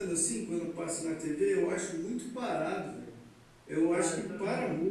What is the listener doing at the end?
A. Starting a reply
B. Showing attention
A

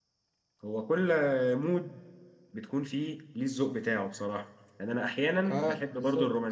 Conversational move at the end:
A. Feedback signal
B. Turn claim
A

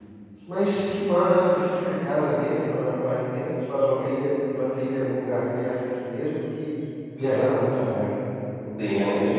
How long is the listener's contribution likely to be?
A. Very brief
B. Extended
B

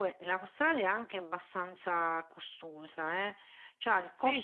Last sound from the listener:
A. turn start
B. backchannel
B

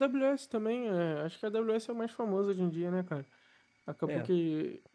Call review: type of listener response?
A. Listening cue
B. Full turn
A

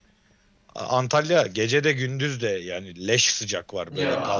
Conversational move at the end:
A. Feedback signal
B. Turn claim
B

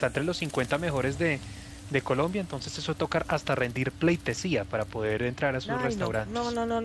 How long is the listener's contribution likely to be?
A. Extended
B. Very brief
A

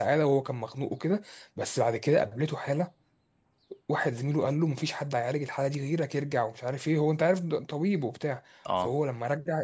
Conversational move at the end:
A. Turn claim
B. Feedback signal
B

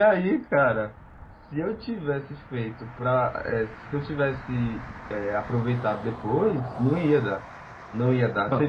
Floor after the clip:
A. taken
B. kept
B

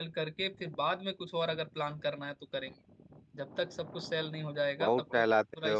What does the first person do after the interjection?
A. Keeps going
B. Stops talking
B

